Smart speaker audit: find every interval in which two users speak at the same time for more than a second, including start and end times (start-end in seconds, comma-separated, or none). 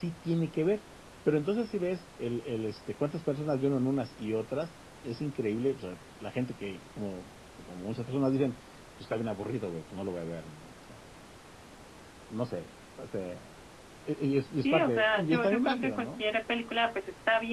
14.6-16.2